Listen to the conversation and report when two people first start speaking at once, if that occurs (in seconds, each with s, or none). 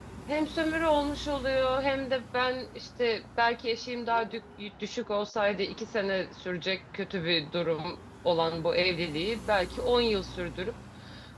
none